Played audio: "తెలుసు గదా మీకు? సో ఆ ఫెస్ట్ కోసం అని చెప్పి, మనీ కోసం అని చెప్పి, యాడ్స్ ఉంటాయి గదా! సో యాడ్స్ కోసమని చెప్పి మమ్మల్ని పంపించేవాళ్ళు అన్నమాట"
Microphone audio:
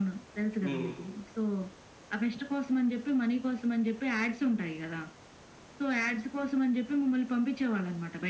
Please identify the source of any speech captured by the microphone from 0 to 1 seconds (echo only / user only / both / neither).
both